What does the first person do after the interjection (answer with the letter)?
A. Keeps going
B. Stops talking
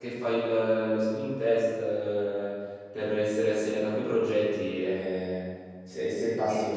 A